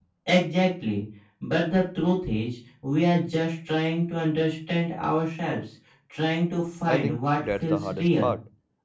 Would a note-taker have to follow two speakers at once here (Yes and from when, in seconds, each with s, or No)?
Yes, from 6.9 s